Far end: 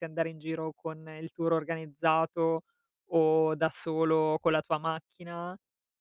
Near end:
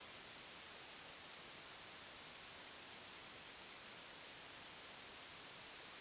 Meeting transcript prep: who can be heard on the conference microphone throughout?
neither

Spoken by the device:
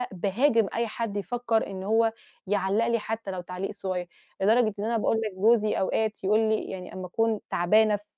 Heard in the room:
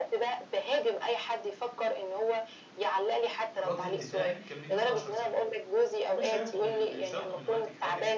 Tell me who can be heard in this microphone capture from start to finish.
both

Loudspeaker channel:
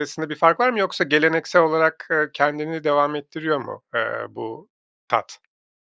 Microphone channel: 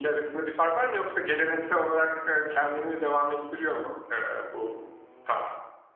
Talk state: echo only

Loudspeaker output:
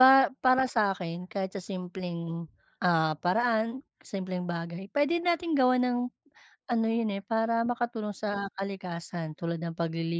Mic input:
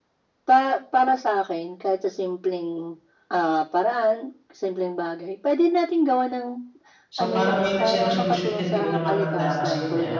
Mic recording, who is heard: both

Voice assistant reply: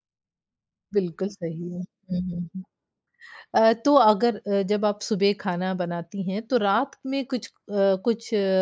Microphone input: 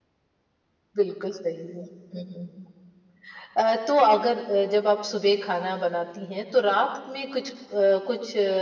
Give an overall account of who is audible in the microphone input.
echo only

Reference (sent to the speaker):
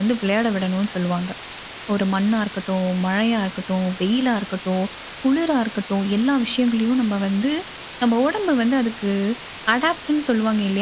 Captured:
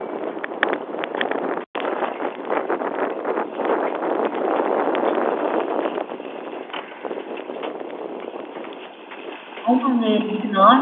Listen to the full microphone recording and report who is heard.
user only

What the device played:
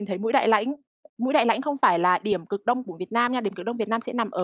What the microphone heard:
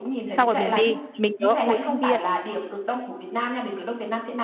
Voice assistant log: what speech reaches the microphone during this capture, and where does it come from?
both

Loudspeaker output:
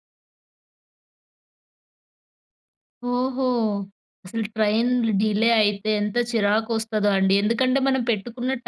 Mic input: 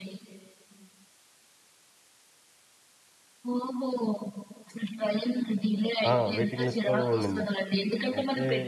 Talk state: both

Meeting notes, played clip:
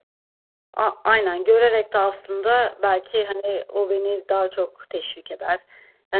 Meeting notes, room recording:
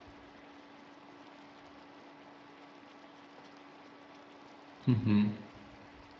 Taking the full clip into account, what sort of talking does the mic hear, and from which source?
user only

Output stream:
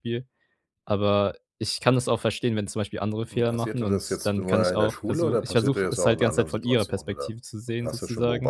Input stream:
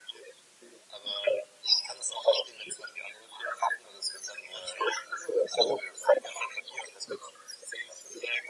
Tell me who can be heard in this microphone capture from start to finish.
echo only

